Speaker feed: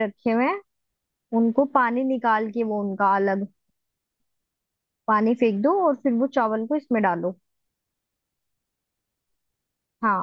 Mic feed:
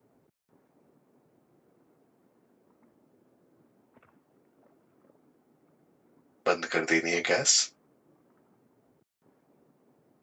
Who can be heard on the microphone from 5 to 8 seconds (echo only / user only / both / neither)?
user only